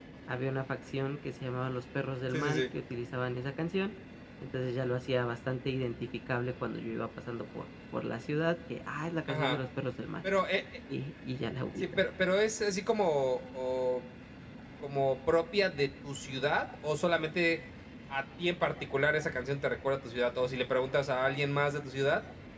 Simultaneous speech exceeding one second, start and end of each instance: none

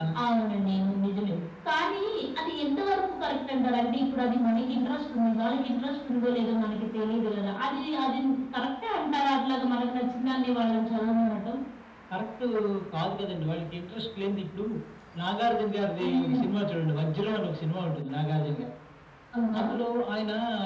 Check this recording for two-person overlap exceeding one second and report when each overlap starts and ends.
none

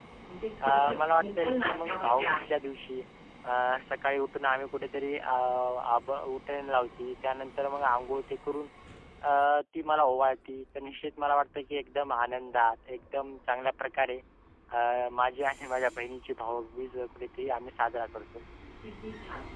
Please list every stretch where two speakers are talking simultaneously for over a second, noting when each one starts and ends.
0.6-2.5

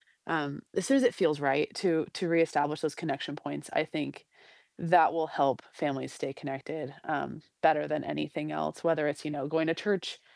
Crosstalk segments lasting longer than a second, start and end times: none

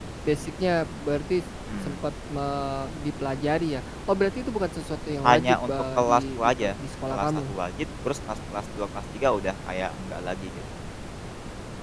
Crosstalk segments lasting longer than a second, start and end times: 5.3-6.7

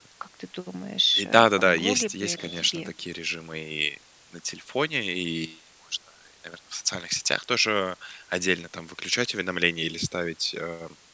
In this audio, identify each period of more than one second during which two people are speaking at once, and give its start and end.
1.2-2.9

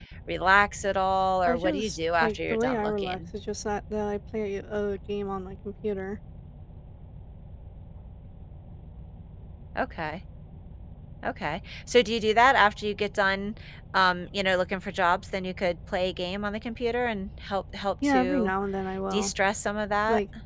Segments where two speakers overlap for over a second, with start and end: 1.4-3.2

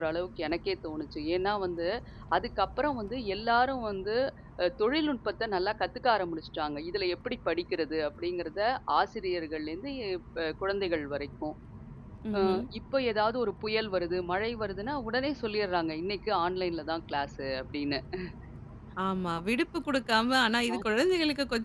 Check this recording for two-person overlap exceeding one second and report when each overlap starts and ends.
none

